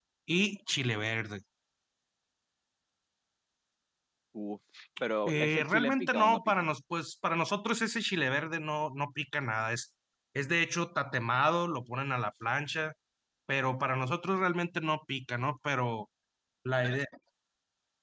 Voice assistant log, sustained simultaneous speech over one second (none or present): present